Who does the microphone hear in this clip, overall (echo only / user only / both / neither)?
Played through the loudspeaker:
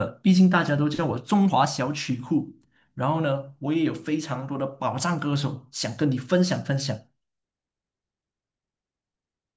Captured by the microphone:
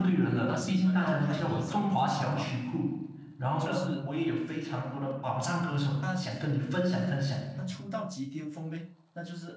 both